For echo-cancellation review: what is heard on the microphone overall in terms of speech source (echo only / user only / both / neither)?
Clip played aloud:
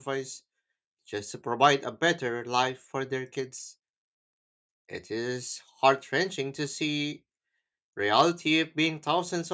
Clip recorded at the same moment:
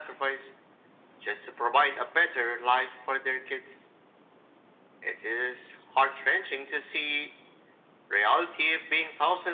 echo only